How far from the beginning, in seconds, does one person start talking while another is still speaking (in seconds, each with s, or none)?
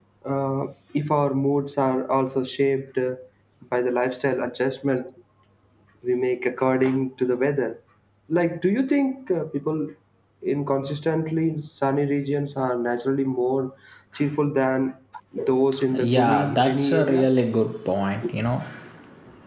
16.0 s